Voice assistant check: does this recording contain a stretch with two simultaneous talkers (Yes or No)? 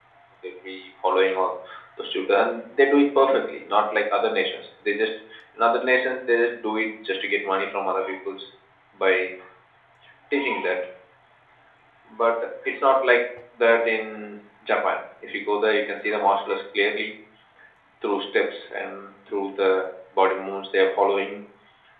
No